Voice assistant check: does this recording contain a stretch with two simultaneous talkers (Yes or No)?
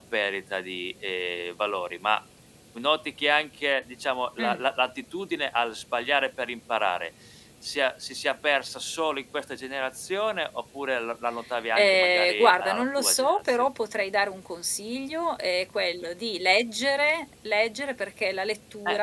Yes